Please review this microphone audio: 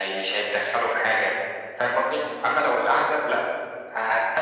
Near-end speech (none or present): none